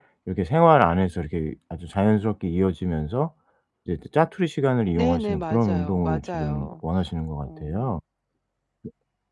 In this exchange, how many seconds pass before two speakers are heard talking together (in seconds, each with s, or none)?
5.0 s